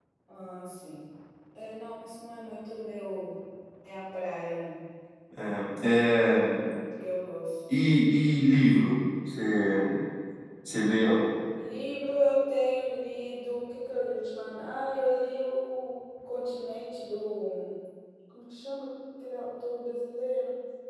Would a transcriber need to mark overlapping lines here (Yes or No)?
No